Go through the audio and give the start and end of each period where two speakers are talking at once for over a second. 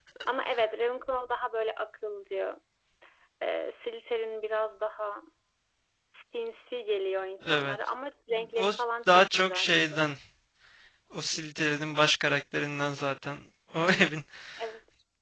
8.6-10.0

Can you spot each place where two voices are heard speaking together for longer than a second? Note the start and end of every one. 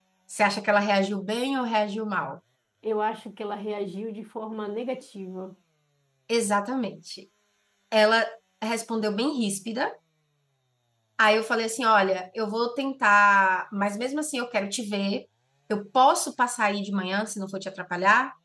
none

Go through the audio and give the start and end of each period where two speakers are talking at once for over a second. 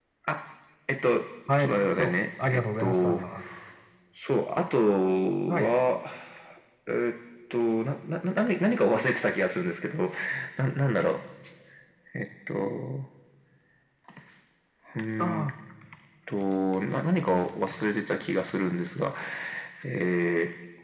1.6-3.2

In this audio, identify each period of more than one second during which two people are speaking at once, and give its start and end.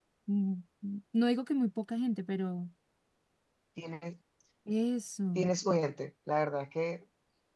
none

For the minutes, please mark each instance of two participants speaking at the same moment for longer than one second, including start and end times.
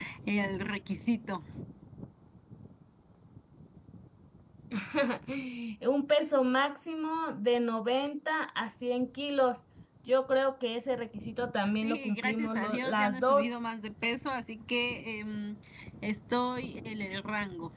11.8-13.6

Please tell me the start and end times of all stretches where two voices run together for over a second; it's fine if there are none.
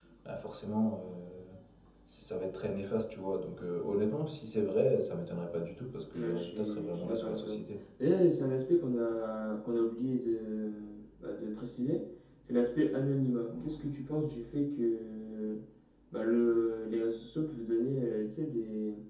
6.1-7.6

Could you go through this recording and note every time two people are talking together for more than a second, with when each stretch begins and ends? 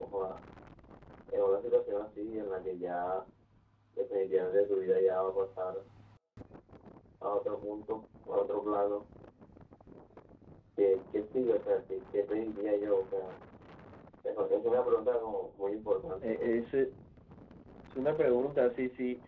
none

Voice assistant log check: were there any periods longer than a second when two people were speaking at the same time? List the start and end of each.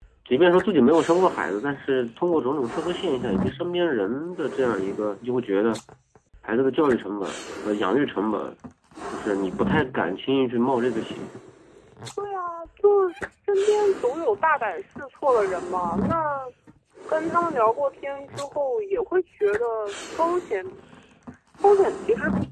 none

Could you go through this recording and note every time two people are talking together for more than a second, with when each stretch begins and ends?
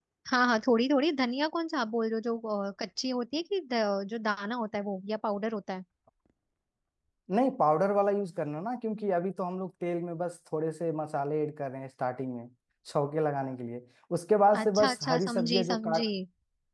14.6-16.1

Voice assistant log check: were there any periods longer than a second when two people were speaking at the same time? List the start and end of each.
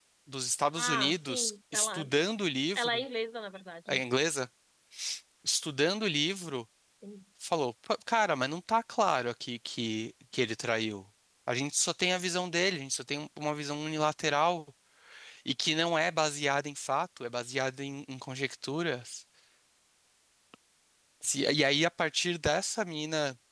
0.8-2.0

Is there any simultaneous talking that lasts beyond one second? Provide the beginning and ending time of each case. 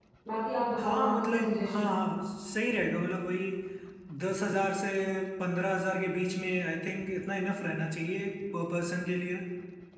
0.8-2.0

